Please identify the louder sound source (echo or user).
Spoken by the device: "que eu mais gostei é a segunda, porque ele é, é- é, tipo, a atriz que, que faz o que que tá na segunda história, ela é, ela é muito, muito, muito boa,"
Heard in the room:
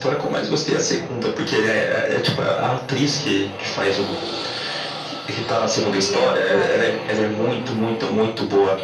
echo